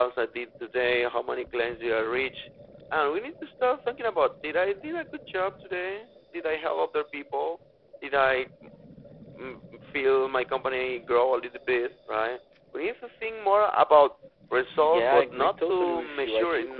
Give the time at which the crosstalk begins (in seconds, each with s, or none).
14.8 s